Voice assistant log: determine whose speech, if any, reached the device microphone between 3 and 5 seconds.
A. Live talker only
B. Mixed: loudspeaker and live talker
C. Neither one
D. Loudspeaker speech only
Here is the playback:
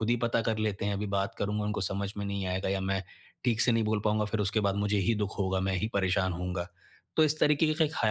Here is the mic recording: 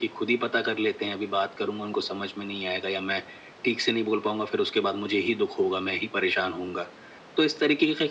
D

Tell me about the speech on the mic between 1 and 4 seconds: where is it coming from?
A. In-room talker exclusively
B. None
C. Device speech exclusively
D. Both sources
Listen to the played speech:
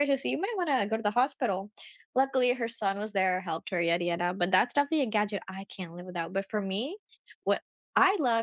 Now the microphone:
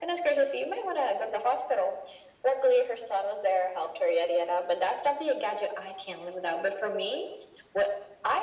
C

